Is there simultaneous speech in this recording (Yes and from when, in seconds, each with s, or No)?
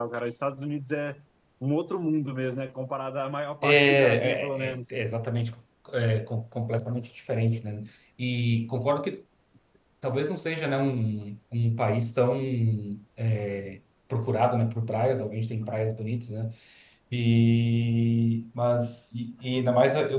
Yes, from 3.6 s